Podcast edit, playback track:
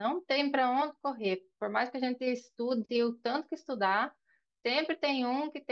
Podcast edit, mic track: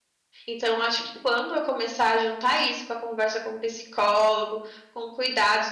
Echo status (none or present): none